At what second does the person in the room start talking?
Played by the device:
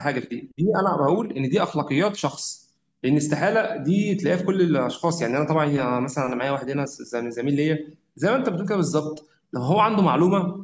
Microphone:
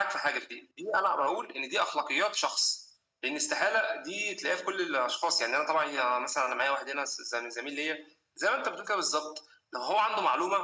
none

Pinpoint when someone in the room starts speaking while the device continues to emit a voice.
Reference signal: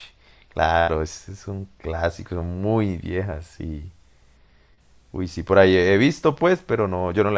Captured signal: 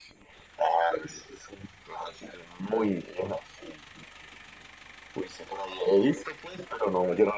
none

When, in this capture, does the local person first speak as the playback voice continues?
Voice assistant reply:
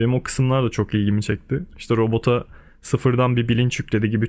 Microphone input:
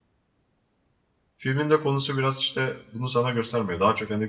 1 s

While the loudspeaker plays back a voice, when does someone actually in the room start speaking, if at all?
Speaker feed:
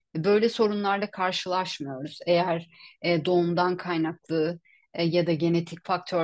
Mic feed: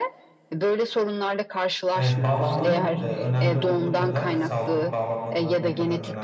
2 s

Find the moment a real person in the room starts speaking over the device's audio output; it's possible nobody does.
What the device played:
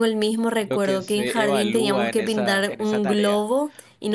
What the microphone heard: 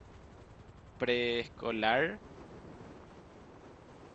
1 s

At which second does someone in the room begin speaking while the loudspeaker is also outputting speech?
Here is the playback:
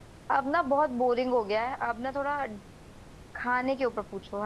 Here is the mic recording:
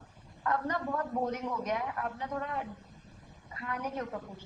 none

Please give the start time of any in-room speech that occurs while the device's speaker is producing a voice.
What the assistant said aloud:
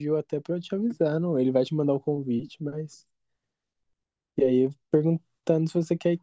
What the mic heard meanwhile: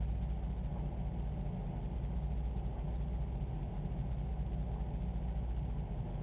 none

